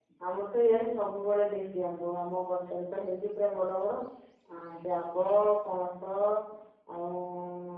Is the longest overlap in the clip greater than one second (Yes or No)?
No